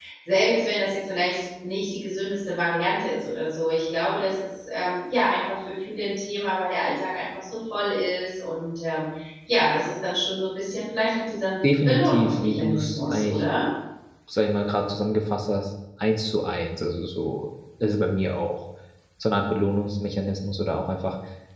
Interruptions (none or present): present